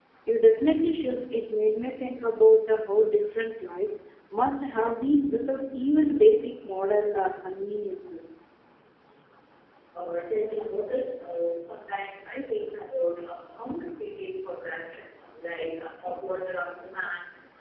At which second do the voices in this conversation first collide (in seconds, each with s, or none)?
none